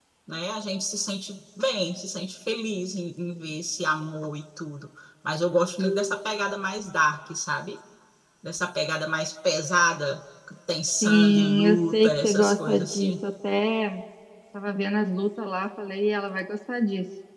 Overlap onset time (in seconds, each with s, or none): 11.0 s